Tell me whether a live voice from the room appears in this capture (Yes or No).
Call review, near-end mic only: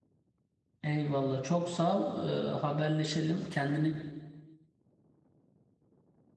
Yes